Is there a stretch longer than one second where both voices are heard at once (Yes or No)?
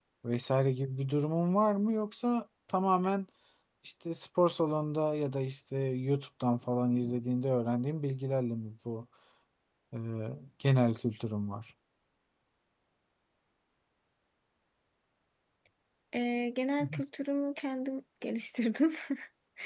No